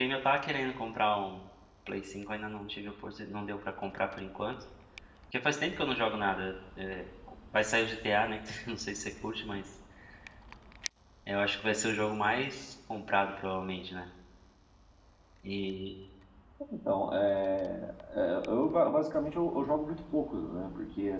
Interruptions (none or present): none